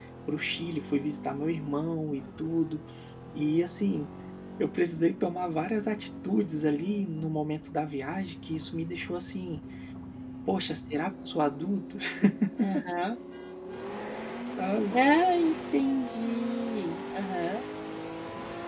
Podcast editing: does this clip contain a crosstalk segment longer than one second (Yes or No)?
No